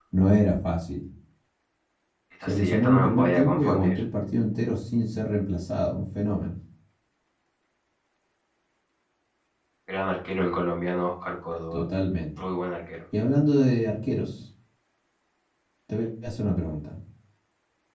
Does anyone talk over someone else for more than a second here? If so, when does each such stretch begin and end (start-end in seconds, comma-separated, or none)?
2.5-4.0